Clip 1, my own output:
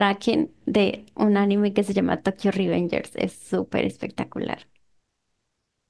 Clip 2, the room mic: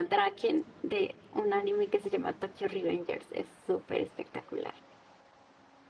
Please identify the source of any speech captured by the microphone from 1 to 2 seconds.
echo only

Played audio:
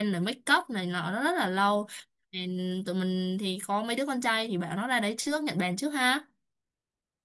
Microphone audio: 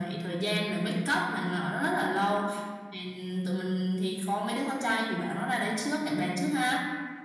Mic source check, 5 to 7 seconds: echo only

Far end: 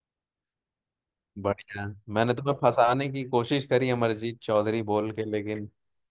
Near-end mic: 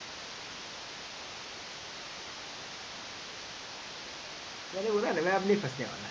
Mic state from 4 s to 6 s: user only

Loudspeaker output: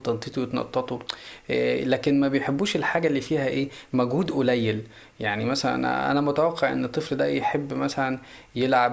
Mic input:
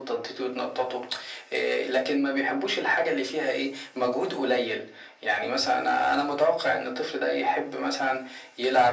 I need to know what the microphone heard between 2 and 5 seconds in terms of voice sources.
echo only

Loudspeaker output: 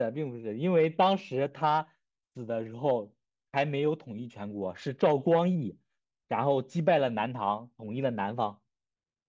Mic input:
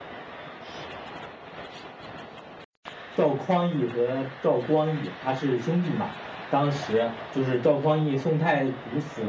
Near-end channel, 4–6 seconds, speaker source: user only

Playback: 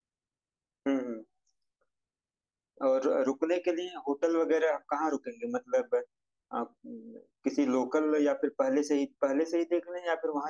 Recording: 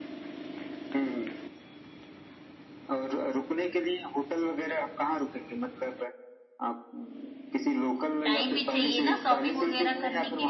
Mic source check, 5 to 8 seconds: echo only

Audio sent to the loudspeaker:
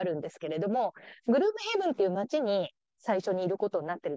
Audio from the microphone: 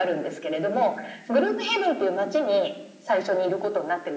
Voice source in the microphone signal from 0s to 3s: echo only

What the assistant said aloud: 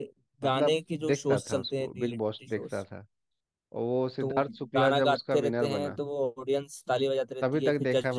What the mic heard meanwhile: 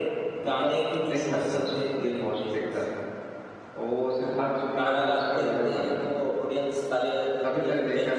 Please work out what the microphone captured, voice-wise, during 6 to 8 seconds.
echo only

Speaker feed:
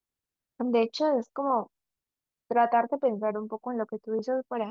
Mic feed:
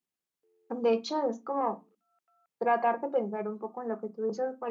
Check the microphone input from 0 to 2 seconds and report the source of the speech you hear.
echo only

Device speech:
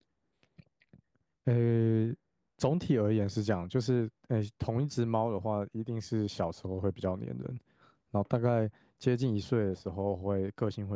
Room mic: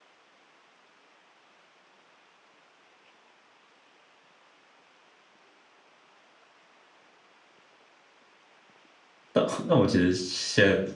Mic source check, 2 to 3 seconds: neither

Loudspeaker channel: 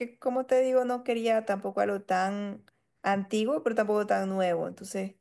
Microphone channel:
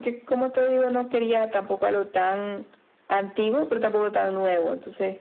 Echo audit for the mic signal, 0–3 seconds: echo only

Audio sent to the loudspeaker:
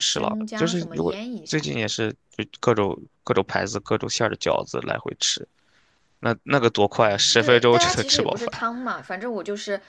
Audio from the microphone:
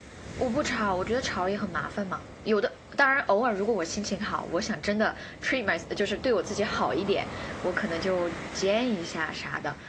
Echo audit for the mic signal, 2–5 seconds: user only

